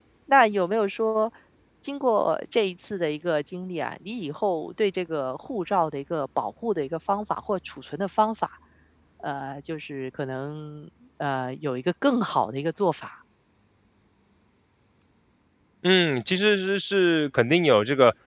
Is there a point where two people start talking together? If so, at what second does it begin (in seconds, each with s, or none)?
none